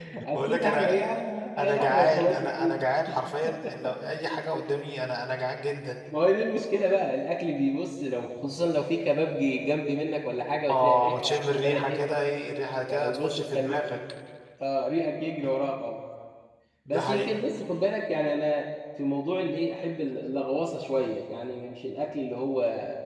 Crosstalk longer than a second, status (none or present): present